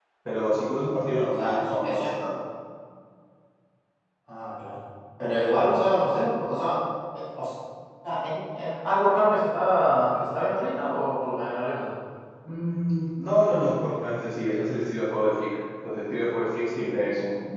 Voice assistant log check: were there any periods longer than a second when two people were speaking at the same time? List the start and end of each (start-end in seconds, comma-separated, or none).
0.8-2.1